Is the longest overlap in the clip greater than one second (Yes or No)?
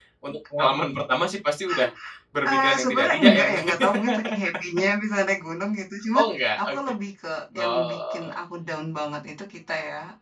Yes